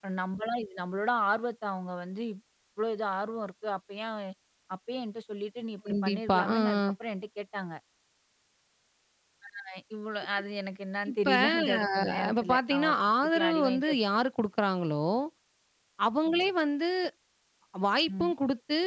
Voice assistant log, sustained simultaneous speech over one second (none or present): present